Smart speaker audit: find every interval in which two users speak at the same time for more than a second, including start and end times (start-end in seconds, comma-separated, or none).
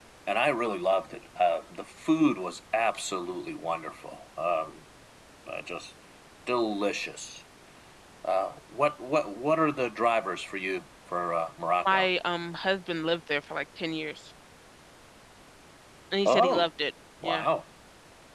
none